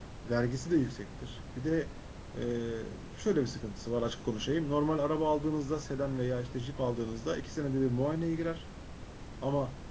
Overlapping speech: No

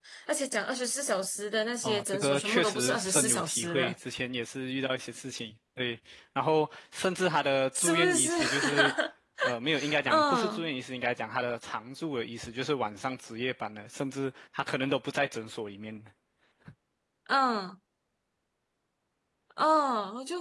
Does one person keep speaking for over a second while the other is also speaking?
Yes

